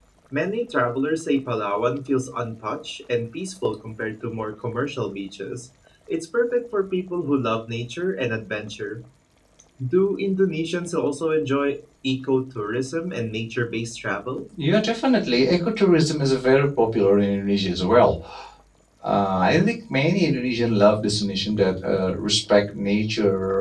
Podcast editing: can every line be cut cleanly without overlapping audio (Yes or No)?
Yes